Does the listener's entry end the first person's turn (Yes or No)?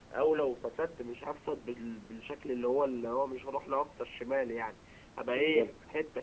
No